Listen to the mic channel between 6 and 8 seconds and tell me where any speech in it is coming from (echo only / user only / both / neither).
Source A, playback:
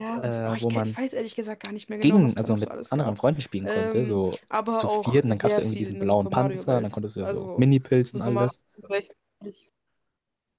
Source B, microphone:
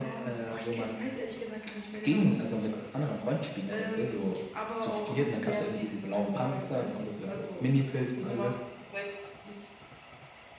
echo only